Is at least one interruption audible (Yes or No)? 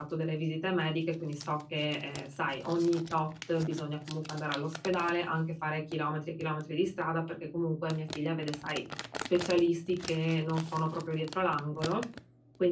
No